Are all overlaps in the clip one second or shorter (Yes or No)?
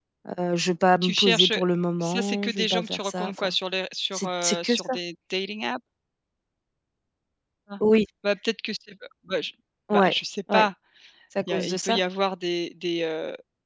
No